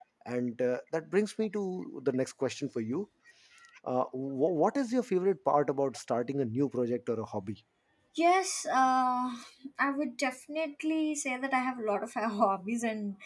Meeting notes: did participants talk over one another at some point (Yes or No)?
No